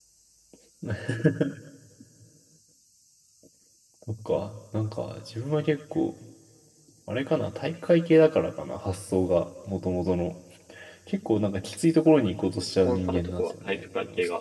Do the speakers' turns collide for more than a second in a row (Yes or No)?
Yes